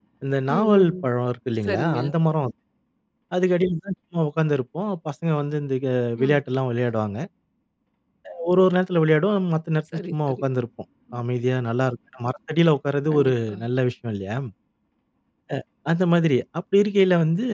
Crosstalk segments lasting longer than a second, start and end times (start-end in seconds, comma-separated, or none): none